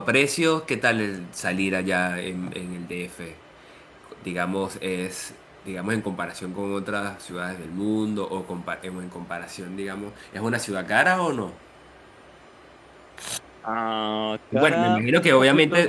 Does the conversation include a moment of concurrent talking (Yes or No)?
Yes